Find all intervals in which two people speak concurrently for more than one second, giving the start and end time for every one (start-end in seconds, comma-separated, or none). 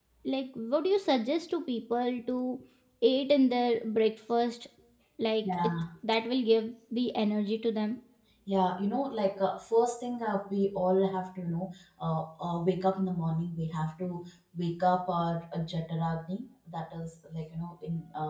none